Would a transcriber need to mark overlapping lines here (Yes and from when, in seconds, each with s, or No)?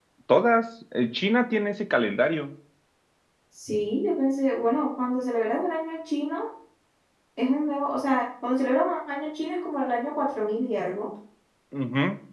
No